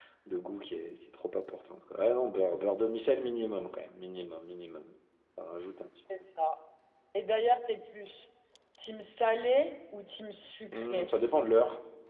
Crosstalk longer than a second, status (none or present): none